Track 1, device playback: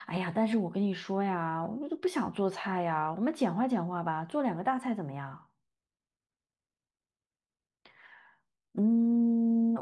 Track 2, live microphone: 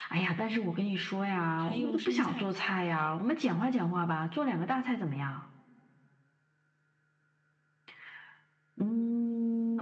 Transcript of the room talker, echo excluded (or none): 还有生菜。